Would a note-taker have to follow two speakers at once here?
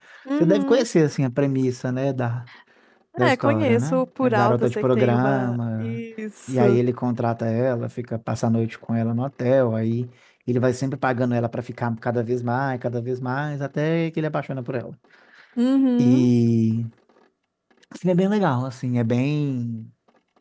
Yes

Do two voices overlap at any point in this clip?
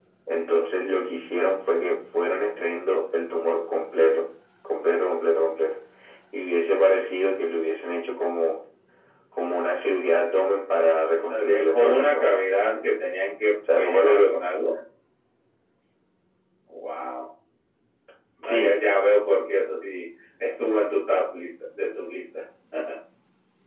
Yes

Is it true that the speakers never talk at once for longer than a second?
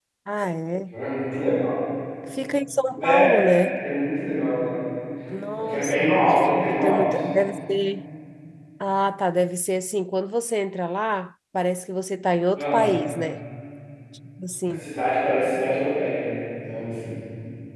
Yes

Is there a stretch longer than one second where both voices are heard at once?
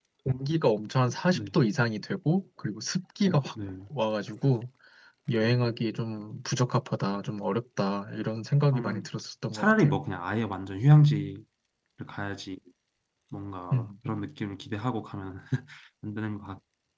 No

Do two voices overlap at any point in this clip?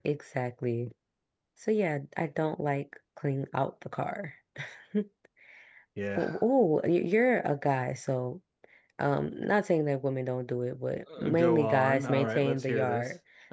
Yes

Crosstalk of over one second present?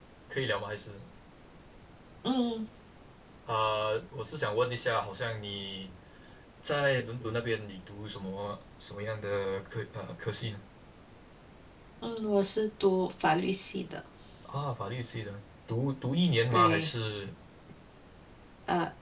No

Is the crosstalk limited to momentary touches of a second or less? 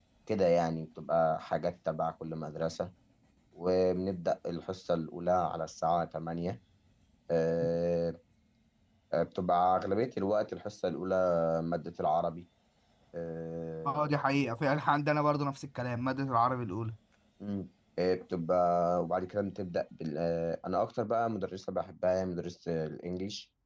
Yes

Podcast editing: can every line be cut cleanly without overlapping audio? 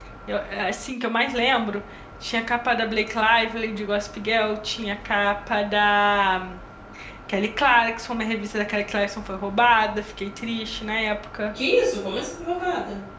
Yes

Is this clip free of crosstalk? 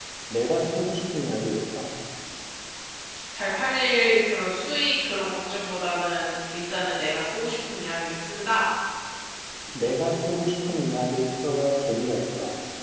Yes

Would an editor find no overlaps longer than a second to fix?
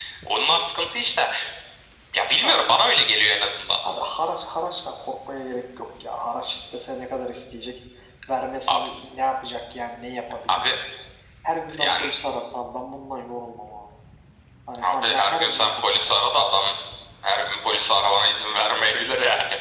No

